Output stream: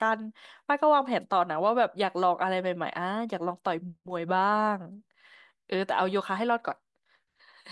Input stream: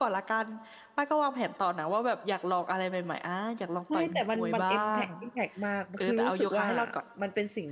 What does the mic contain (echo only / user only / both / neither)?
both